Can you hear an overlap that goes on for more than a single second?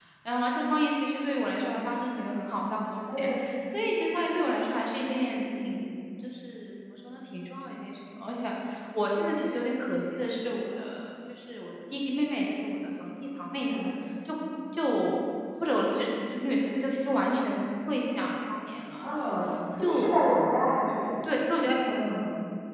No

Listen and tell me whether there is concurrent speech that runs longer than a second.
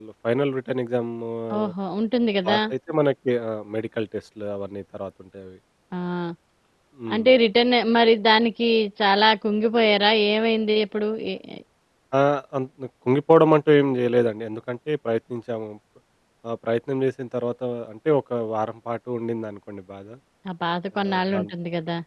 No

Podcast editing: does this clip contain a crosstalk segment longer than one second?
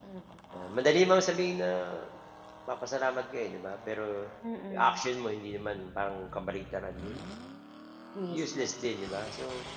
No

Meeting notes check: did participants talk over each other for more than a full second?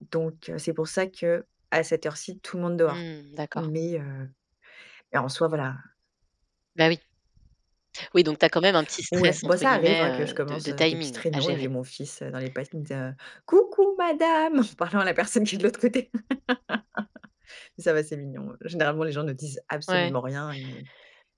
Yes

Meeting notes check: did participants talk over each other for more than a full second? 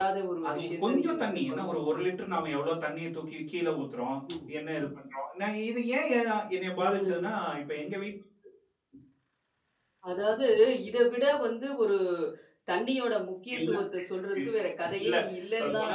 Yes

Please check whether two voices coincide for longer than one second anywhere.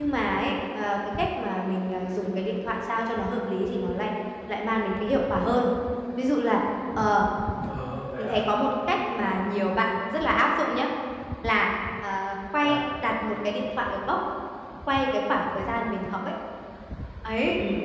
No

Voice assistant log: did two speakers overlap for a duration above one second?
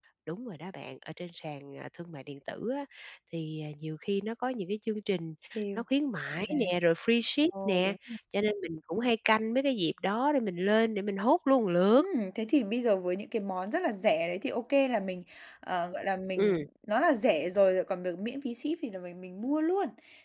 No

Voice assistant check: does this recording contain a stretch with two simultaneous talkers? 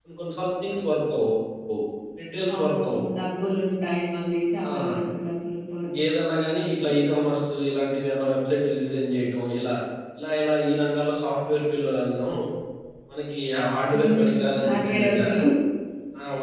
Yes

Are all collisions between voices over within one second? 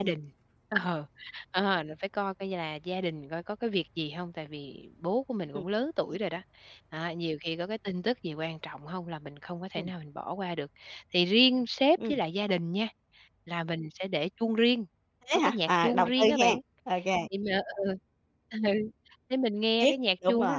No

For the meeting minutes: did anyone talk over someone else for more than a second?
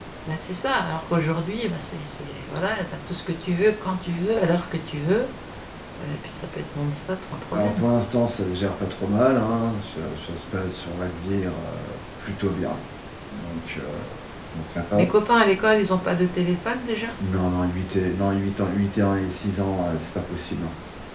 No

